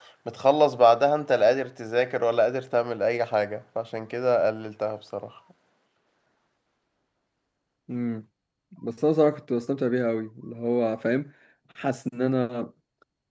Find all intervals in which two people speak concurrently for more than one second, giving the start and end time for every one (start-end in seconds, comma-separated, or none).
none